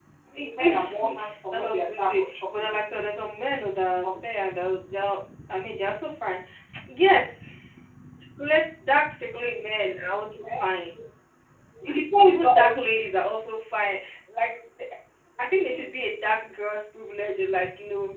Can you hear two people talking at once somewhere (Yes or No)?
Yes